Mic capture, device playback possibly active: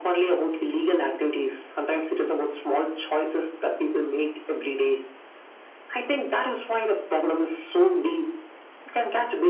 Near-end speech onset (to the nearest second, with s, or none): none